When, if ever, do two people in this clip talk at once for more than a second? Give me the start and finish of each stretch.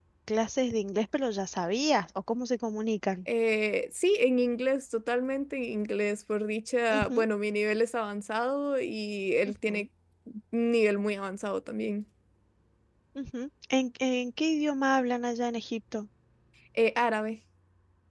none

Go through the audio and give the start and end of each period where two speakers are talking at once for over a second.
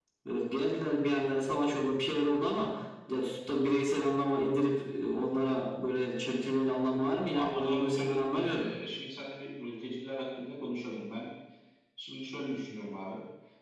7.3-8.6

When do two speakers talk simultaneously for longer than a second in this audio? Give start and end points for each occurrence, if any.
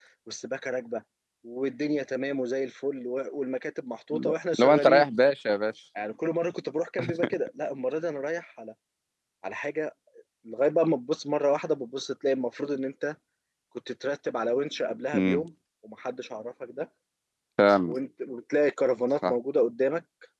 none

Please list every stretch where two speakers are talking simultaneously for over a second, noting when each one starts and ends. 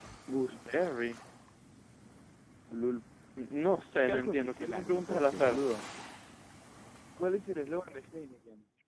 3.9-5.6

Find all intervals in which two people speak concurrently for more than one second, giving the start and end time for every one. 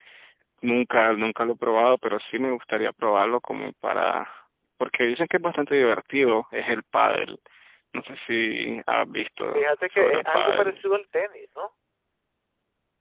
9.5-10.8

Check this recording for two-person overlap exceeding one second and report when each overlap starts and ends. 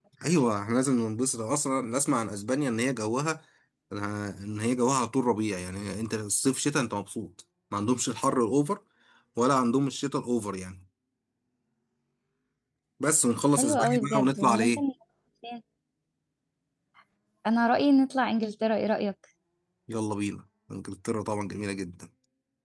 13.6-14.8

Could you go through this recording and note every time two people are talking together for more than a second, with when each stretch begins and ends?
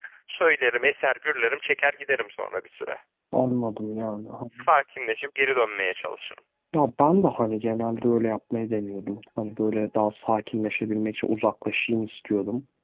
none

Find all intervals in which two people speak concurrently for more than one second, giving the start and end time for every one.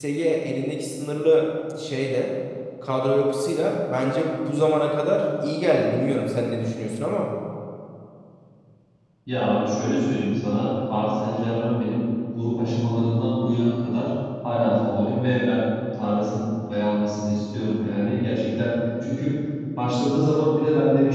none

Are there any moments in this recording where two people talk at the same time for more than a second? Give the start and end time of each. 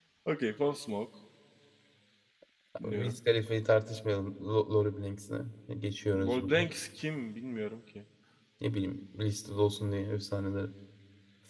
none

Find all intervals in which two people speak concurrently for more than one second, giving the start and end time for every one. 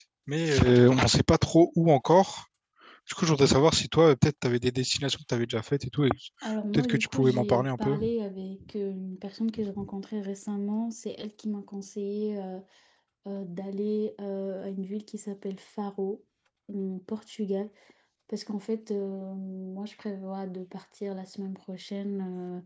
6.7-8.0

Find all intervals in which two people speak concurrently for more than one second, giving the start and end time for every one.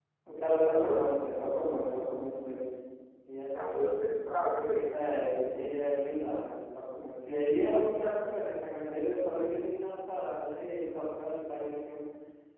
none

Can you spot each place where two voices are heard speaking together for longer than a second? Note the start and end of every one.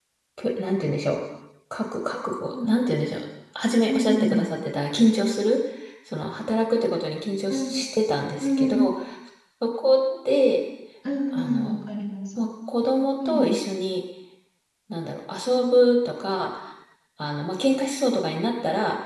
none

